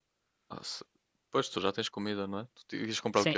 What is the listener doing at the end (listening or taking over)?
taking over